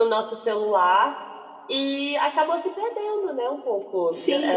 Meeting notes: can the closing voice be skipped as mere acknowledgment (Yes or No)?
No